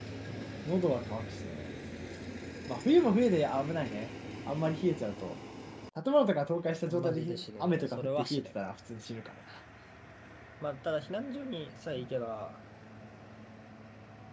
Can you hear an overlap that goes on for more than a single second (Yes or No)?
Yes